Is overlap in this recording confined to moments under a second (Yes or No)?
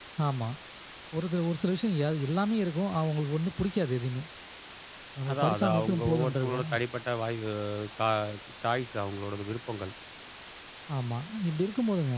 No